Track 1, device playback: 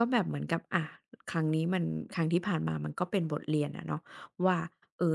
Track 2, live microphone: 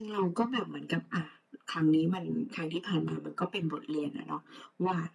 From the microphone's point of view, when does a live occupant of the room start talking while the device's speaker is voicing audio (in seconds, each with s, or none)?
none